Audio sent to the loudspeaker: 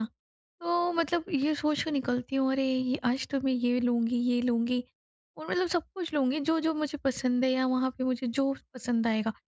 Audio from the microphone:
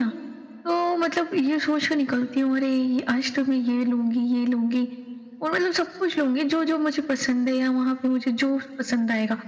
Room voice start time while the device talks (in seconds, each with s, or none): none